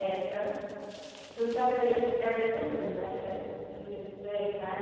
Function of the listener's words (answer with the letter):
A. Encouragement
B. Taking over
A